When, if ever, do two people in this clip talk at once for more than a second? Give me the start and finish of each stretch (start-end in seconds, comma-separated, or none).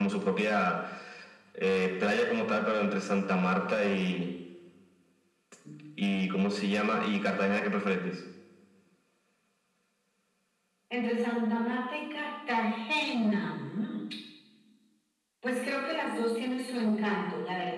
none